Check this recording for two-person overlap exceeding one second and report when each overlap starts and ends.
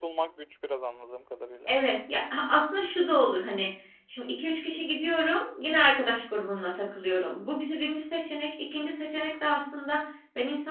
none

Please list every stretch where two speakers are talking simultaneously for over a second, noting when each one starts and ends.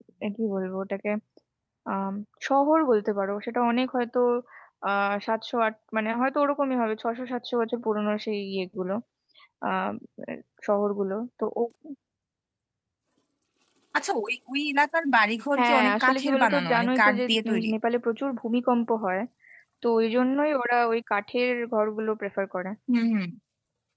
15.6-17.7

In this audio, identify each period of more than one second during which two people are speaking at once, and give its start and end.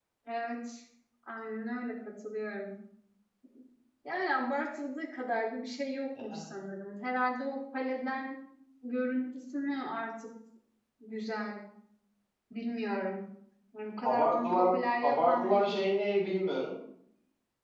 14.0-15.8

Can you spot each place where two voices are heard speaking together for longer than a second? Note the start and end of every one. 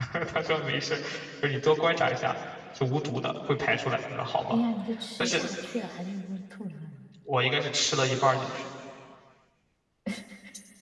none

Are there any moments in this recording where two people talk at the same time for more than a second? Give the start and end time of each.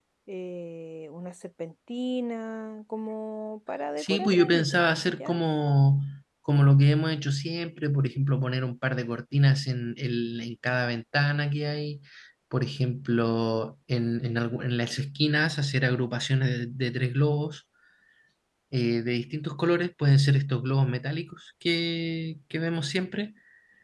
4.0-5.4

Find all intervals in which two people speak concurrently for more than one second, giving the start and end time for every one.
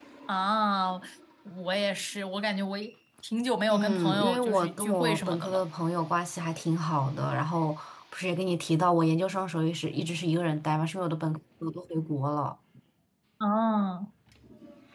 3.7-5.6

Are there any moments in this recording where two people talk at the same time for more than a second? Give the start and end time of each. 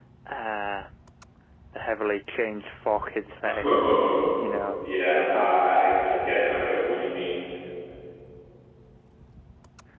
none

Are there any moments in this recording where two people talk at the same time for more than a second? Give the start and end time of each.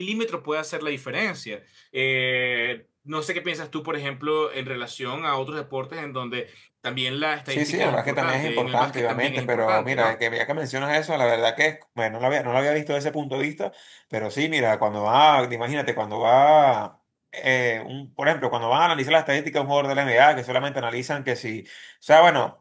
7.5-10.2

